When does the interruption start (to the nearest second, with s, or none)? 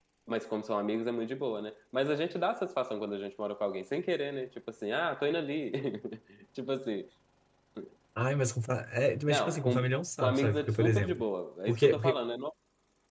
9 s